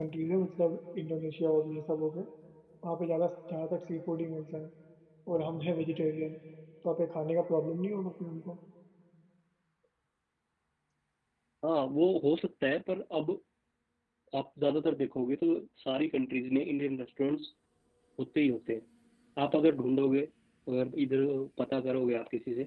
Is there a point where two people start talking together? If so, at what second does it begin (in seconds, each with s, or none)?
none